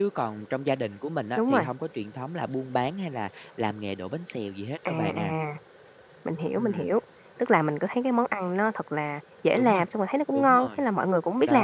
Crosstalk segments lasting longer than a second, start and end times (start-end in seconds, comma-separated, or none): none